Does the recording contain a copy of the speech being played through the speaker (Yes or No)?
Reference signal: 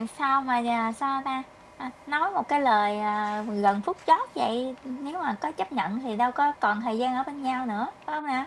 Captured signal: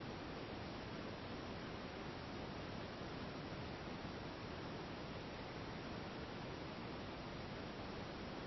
No